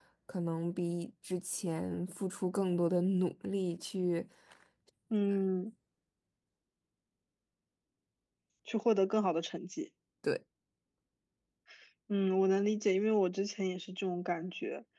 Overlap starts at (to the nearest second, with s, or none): none